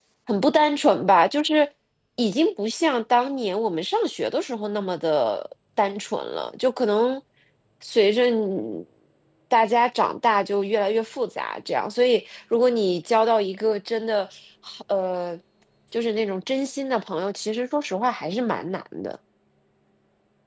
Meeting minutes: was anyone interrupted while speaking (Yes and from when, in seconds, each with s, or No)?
No